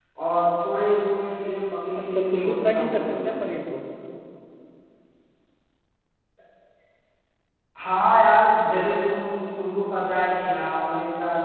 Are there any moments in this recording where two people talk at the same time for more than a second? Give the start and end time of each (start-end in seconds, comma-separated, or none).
2.0-3.3